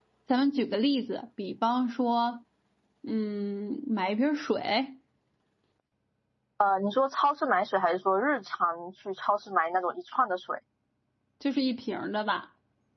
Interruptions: none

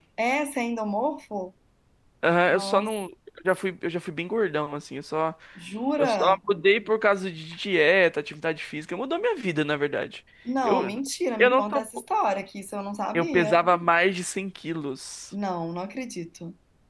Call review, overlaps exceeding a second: none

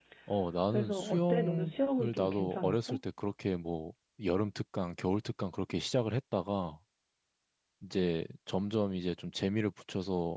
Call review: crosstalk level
present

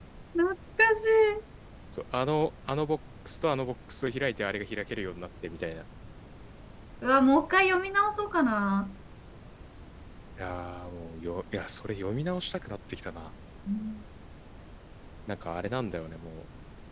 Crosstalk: none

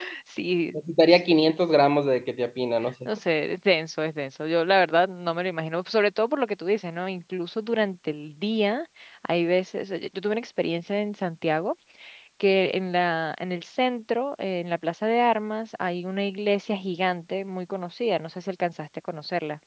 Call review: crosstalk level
none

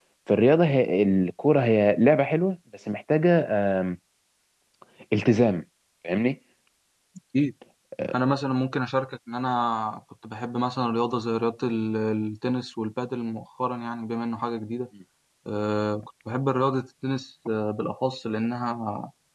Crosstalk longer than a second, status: none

